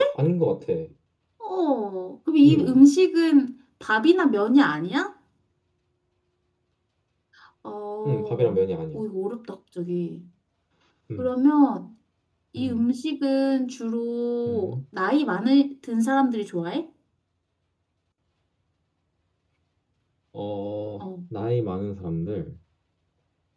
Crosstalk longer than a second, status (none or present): none